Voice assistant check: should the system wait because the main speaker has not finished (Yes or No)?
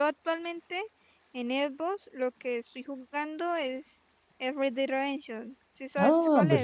No